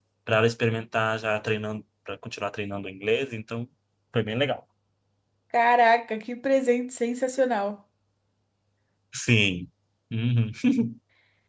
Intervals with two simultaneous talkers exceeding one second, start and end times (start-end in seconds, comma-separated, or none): none